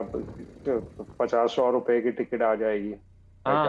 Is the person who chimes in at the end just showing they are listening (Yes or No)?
No